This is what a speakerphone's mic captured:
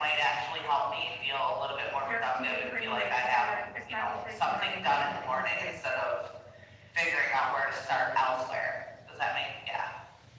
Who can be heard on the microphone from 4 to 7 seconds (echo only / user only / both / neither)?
both